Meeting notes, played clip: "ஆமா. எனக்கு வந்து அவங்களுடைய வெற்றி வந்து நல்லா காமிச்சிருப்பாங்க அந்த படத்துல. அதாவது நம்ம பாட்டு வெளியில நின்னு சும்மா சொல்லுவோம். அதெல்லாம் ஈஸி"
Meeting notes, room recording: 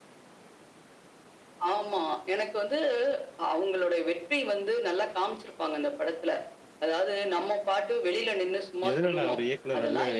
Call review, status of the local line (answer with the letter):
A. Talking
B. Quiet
A